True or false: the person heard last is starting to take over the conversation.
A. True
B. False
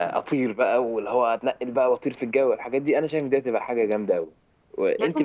A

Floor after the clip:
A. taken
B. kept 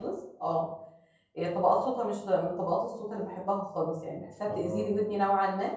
B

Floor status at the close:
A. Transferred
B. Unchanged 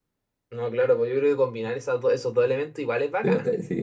A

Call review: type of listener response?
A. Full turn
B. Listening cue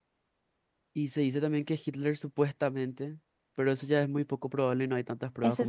A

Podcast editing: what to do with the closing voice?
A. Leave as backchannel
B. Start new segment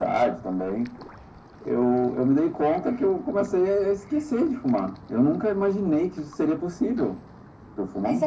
B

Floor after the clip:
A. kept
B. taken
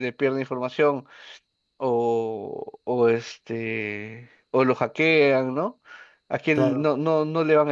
A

